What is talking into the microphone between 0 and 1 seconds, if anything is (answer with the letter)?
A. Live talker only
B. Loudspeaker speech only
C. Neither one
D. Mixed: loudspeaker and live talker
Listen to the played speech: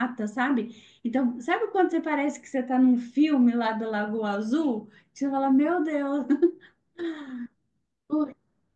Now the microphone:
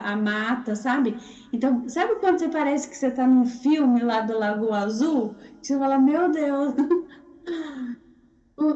B